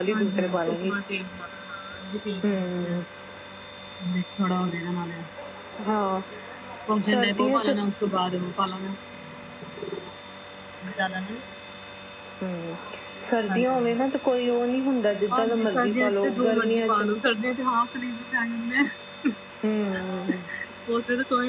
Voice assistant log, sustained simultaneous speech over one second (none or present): present